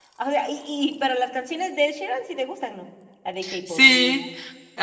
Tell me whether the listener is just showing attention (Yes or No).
No